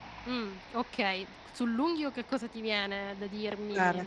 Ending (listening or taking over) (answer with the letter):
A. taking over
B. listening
A